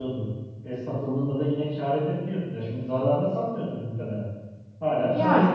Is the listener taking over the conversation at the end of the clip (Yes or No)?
No